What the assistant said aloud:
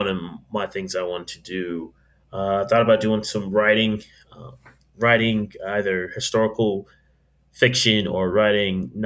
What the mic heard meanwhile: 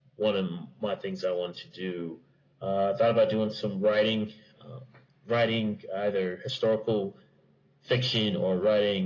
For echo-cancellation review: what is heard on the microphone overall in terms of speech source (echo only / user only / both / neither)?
echo only